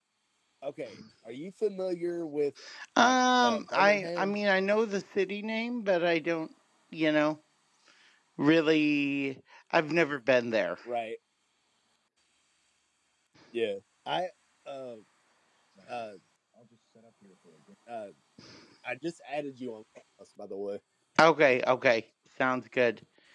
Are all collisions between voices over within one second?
No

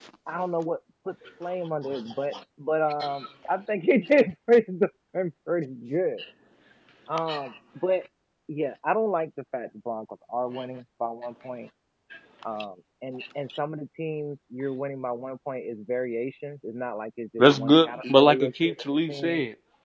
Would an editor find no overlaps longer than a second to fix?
No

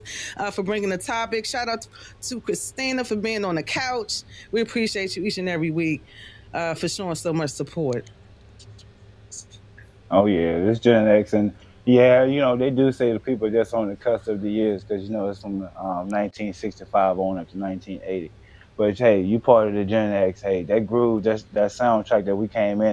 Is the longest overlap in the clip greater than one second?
No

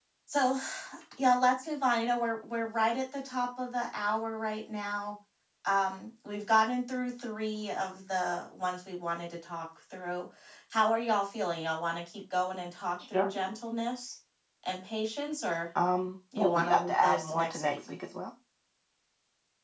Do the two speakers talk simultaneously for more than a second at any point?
Yes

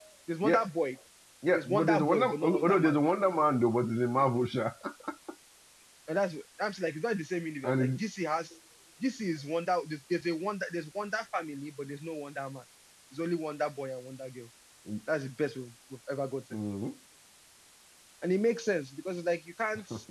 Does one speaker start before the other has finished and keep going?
Yes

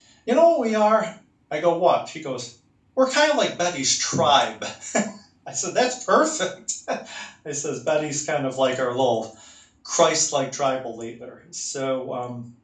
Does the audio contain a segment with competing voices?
No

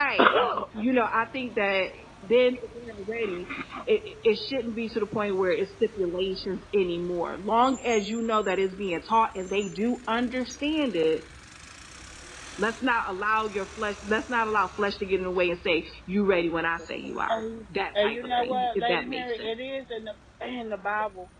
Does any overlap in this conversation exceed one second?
Yes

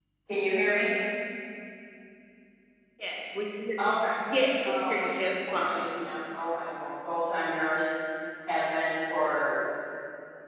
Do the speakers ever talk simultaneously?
Yes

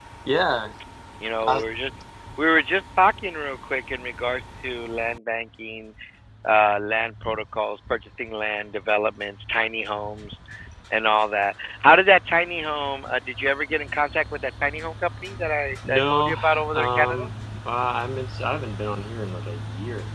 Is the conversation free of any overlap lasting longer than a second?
No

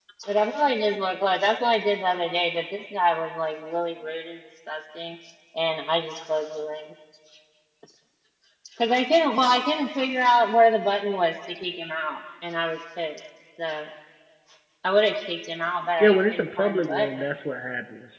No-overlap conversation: No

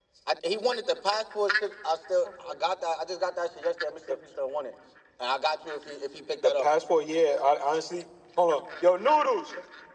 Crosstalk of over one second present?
No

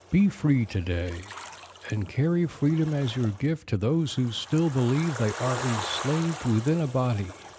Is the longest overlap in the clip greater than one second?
No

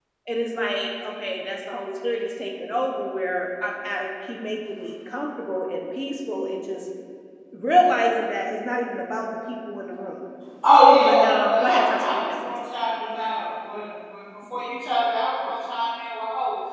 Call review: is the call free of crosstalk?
No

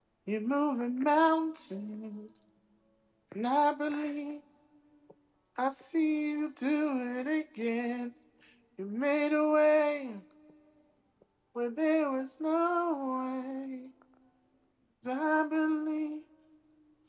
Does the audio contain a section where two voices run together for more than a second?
No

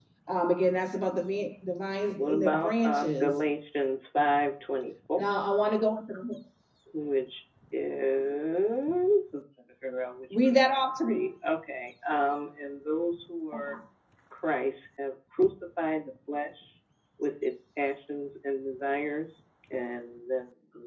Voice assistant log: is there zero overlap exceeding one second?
No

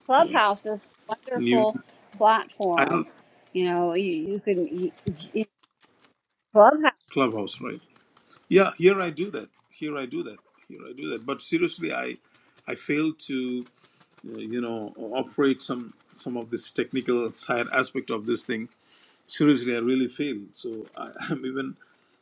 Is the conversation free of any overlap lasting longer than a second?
Yes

